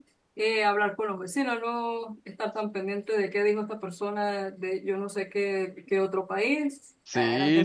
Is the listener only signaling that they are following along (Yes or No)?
No